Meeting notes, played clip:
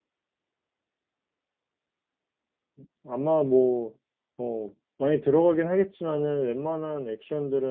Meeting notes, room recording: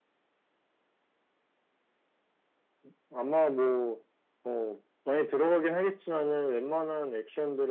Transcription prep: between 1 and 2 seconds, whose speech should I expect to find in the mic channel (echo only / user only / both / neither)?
neither